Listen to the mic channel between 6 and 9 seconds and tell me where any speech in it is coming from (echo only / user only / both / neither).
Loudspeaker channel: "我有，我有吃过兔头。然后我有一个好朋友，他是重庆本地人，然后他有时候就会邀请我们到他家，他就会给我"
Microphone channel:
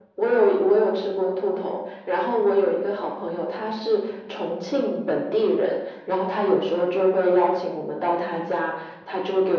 echo only